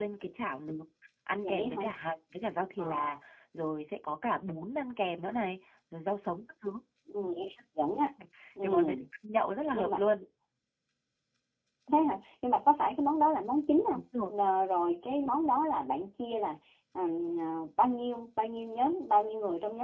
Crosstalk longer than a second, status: none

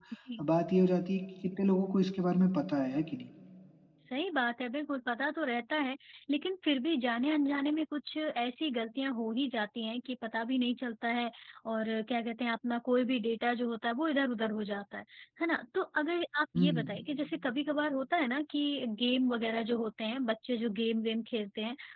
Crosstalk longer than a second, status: none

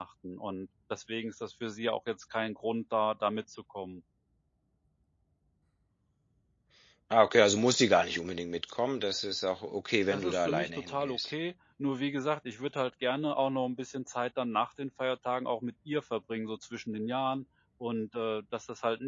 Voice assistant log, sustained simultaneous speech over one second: present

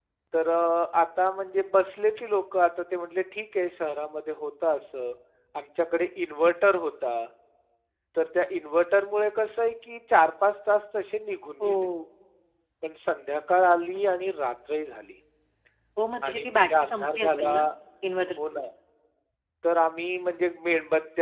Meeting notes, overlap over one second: present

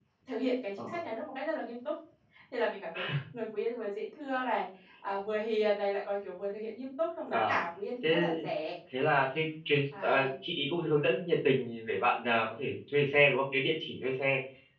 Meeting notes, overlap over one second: none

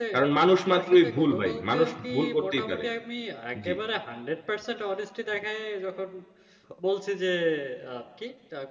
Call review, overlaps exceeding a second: present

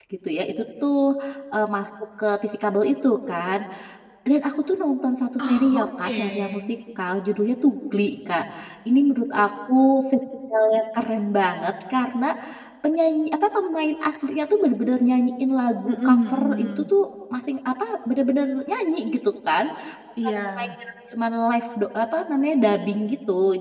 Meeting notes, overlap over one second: present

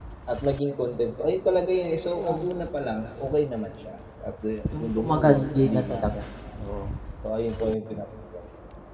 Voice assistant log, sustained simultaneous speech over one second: present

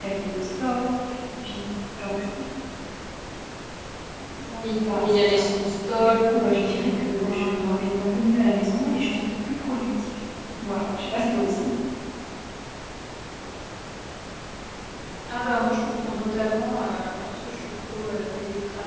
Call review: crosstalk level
present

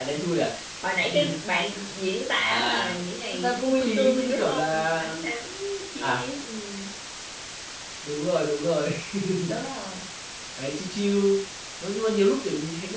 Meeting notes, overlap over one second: present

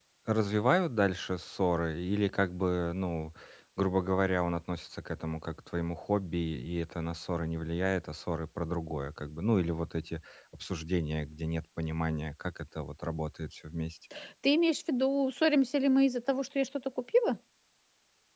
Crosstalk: none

